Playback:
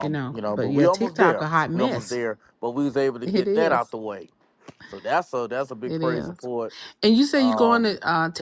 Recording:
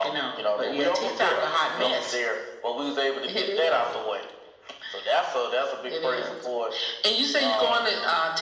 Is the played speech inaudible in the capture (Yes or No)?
No